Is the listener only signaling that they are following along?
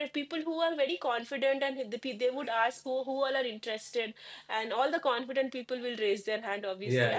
Yes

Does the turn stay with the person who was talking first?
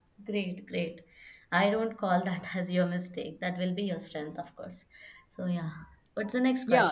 No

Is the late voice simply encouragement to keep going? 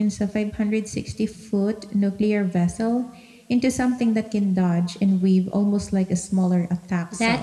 No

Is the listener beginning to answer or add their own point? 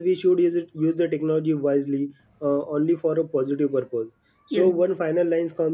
No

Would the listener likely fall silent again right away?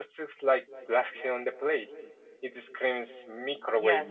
No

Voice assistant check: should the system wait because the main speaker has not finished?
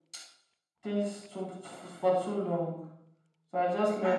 No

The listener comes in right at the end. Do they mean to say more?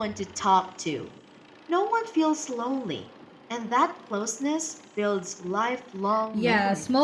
Yes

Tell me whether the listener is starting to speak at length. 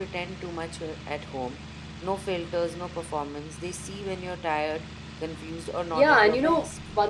Yes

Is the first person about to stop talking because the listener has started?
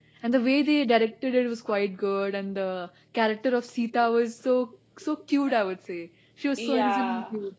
Yes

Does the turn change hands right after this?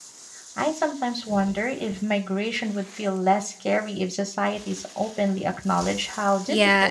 Yes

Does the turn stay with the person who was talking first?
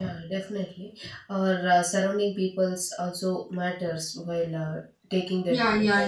No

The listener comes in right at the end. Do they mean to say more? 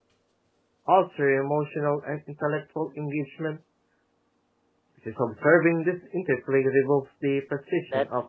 Yes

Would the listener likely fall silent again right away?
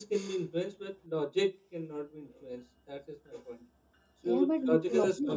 No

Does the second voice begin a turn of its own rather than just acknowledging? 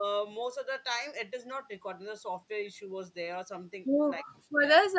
Yes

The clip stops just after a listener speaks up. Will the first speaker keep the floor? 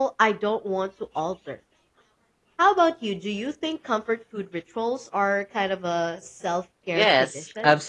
No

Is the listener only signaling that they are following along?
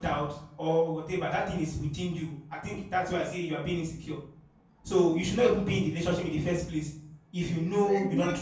No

